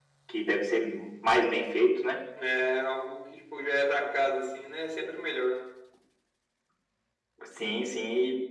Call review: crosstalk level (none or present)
none